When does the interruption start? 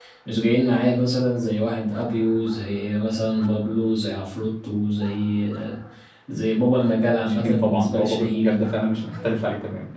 7.2 s

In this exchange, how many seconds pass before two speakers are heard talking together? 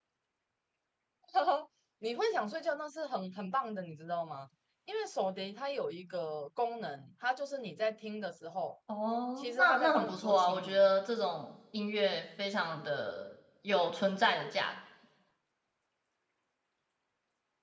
9.4 s

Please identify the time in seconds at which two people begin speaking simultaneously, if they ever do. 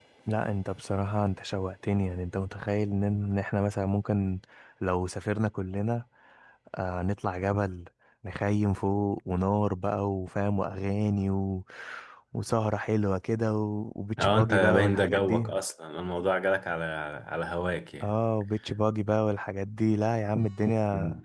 14.2 s

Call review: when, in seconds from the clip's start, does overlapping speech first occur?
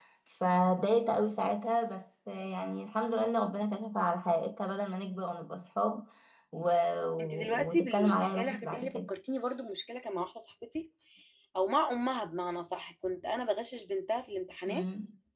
7.2 s

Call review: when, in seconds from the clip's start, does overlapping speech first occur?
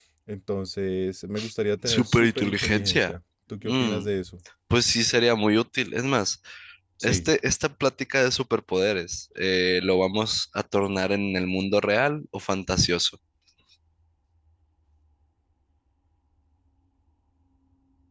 1.9 s

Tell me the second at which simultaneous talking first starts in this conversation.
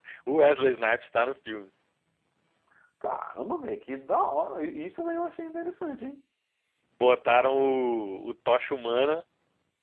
none

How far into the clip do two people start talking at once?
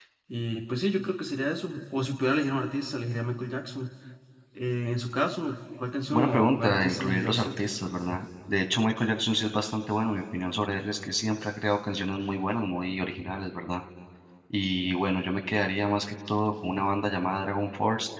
6.1 s

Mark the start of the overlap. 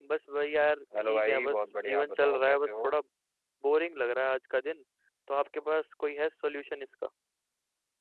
1.0 s

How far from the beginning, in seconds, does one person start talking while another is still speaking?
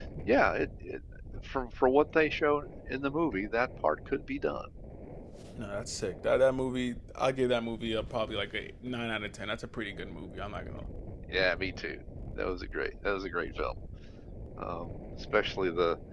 none

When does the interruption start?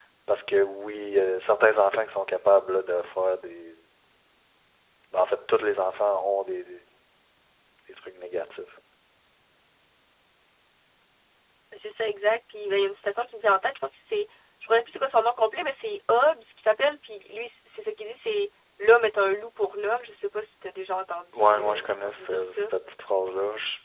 21.3 s

